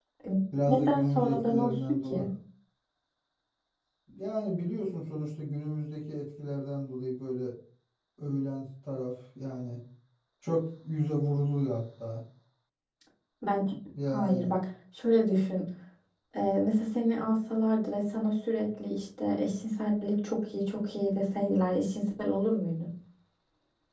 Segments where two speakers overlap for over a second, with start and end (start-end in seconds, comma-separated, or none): 0.7-2.2